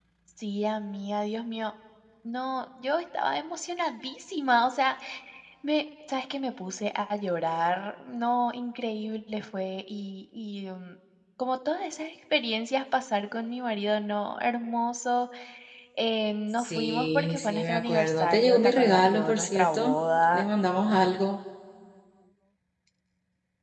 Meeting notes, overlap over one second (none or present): present